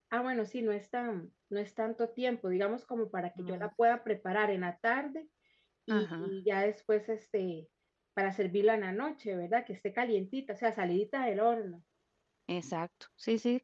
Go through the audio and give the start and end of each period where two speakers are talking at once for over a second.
none

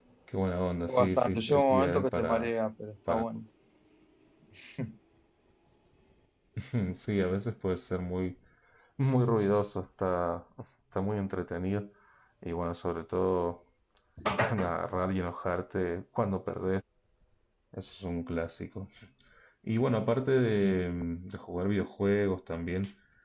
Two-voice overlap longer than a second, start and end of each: 0.9-2.5

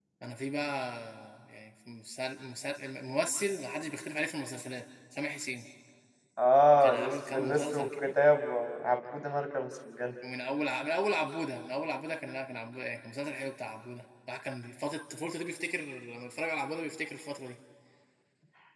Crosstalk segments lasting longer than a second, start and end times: 6.8-8.1

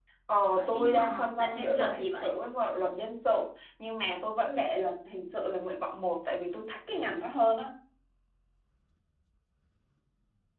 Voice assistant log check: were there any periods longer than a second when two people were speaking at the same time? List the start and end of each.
0.5-2.4

